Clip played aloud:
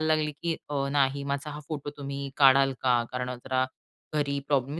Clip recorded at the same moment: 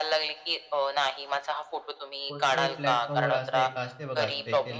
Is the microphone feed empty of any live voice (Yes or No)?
No